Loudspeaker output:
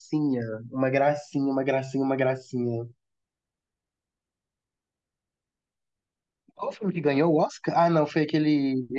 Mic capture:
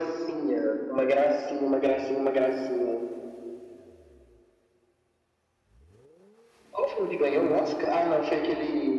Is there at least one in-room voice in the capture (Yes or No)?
No